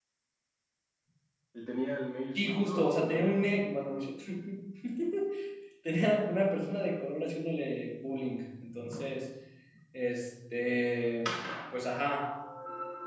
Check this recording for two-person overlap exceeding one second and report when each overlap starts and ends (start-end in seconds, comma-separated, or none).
2.4-3.6